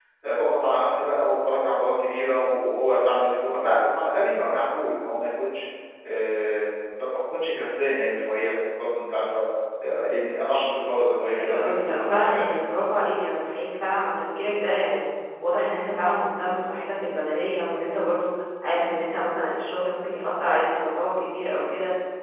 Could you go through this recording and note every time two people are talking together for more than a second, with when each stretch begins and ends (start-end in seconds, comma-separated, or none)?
11.4-12.6